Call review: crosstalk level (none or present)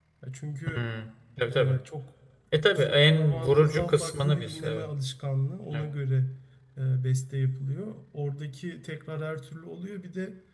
present